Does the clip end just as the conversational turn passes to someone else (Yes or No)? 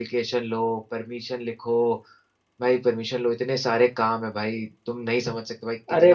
Yes